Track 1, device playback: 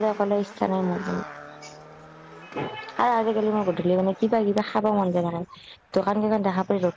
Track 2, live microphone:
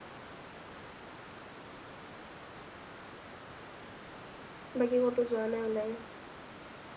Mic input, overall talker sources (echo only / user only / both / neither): user only